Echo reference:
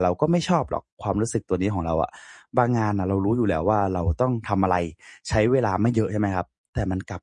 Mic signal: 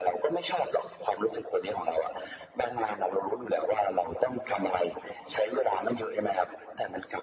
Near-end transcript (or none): none